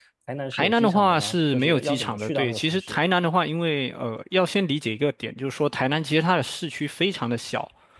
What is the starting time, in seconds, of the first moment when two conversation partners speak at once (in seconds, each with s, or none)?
0.6 s